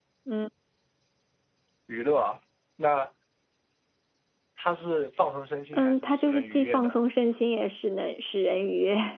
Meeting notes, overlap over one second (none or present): present